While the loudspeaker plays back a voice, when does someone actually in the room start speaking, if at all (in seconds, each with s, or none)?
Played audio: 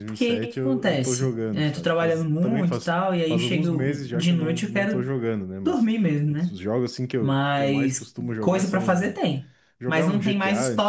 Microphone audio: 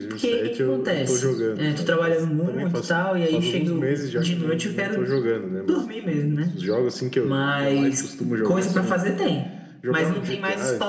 none